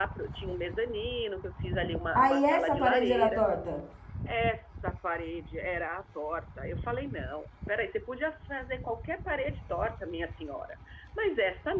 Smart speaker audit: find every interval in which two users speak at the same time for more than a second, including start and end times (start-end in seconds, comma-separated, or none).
2.1-3.4